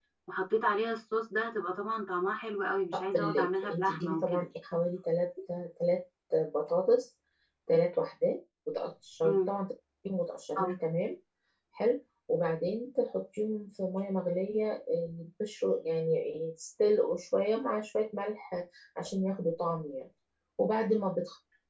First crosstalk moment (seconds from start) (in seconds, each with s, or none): 2.9 s